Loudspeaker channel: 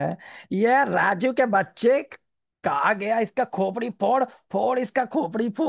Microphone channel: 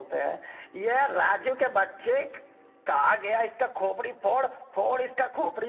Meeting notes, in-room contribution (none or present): none